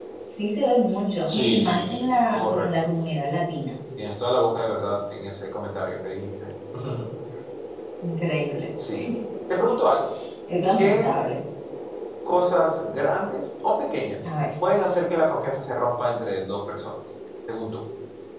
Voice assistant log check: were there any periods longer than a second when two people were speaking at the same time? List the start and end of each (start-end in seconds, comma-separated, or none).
1.3-2.7